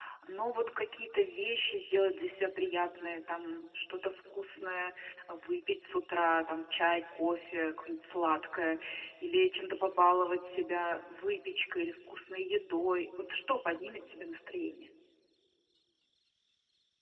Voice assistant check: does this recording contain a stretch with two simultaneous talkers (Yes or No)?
No